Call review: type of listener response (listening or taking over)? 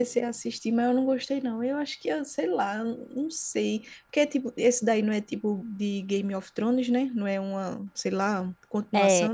taking over